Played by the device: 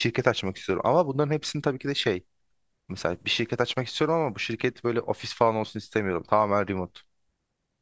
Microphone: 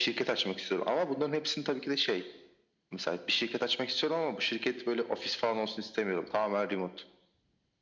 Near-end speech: none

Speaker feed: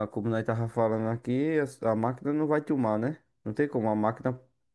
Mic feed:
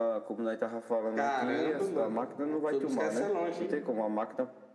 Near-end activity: present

